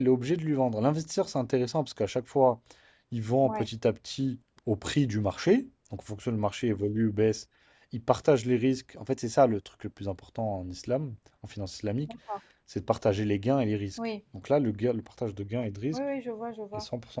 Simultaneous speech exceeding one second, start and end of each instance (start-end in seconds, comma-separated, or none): none